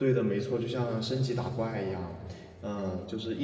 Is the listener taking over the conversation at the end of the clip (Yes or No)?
No